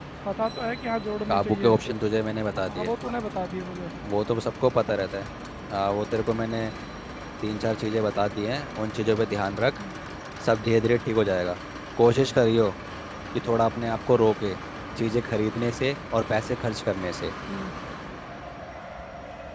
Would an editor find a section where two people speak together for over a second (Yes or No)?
No